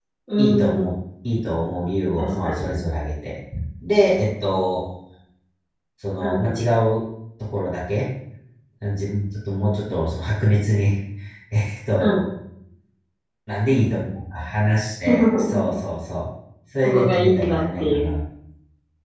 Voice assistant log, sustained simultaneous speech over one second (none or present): present